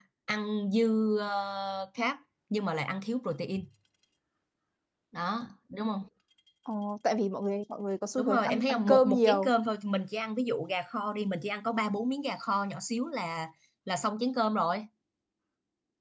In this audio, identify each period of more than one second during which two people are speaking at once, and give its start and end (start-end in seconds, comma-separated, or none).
8.2-9.5